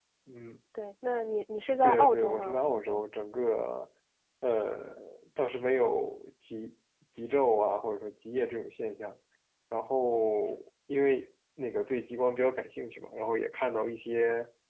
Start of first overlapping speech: 1.8 s

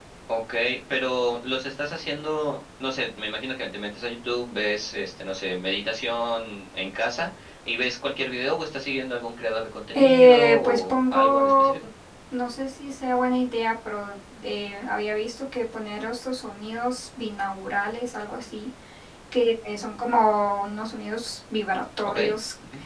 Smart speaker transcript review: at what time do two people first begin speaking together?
9.9 s

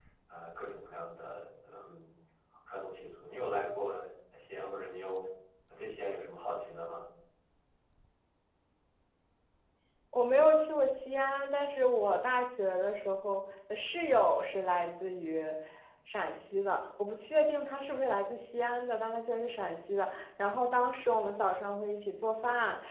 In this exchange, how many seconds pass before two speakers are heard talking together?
none

